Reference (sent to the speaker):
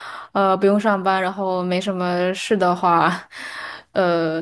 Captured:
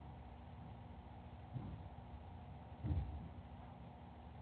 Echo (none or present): none